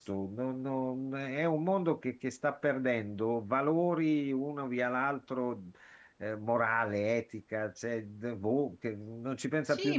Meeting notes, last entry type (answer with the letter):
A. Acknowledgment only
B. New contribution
B